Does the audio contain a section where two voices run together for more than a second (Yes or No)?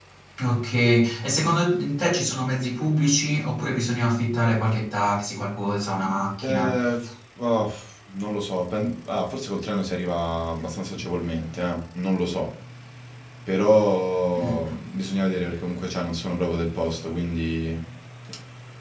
No